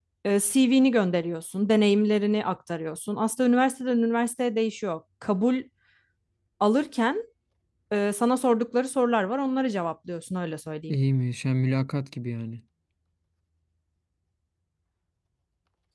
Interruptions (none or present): none